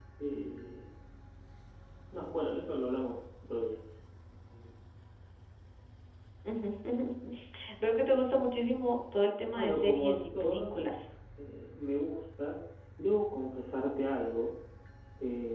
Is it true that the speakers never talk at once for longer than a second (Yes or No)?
No